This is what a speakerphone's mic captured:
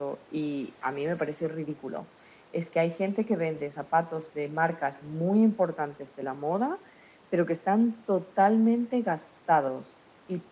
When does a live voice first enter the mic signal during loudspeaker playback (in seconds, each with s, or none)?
none